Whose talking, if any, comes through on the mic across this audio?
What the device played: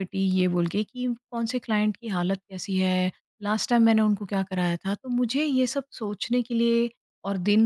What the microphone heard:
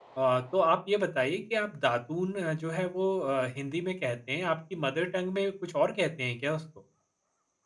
user only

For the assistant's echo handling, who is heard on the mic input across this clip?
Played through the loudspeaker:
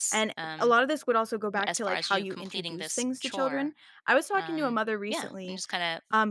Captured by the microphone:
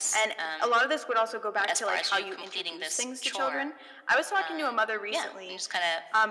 echo only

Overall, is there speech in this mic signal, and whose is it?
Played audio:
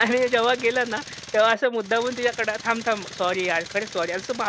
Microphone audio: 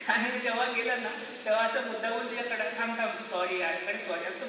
echo only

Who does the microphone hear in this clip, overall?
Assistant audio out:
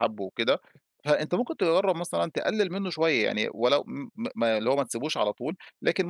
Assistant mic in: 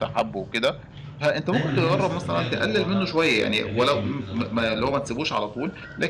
both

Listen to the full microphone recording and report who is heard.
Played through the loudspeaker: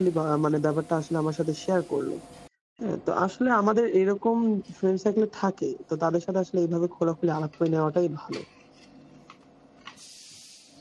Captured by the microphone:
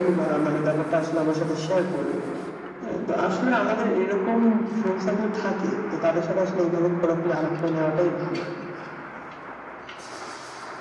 echo only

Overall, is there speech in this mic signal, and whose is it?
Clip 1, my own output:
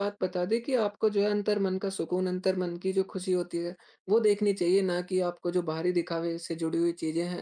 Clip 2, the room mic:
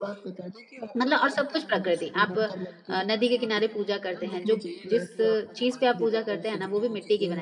both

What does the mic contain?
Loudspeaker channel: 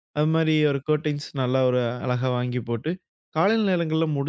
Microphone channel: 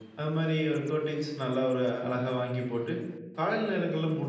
echo only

